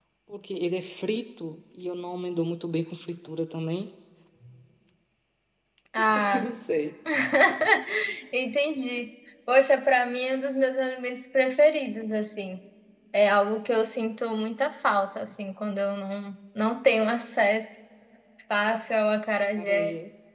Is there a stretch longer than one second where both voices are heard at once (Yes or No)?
No